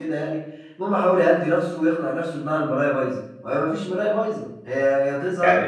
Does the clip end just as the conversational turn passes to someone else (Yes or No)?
Yes